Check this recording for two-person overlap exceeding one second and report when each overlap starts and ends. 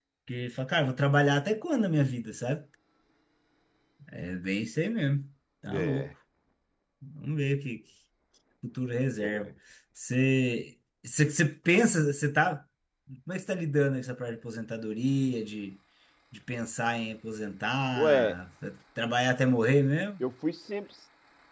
none

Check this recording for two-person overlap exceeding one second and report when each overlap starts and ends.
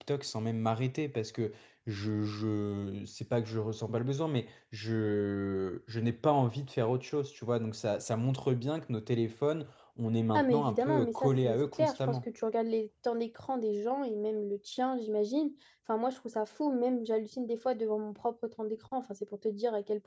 10.3-12.2

